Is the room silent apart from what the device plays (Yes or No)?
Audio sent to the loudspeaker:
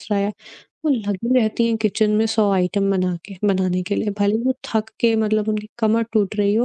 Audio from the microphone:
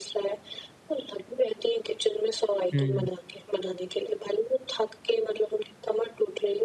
No